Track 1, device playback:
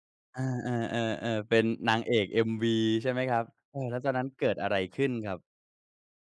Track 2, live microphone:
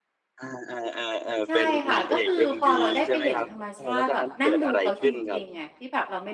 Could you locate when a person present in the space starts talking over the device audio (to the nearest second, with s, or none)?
1 s